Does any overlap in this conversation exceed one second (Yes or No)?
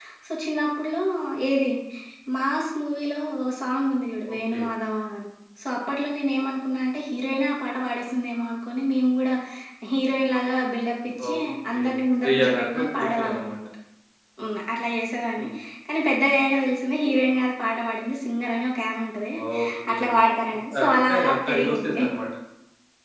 Yes